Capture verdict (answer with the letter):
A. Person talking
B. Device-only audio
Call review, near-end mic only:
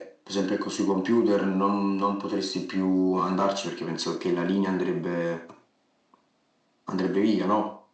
B